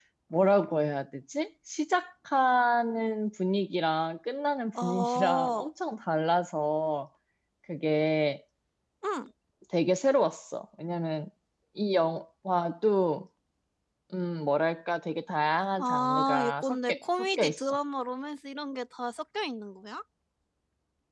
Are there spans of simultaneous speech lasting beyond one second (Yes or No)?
Yes